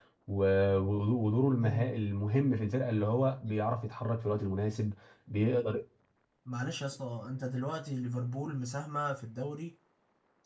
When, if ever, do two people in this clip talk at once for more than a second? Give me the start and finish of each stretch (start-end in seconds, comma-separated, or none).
none